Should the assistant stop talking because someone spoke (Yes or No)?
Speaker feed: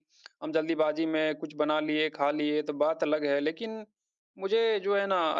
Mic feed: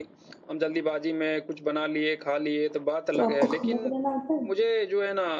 Yes